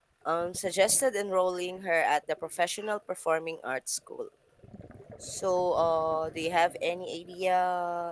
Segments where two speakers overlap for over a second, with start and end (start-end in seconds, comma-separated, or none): none